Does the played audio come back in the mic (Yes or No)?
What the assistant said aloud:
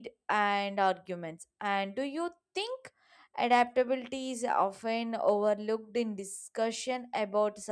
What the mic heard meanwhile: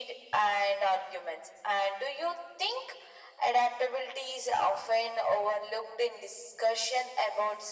Yes